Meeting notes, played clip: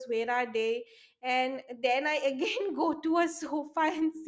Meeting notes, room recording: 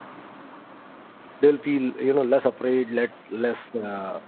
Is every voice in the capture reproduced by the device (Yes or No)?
No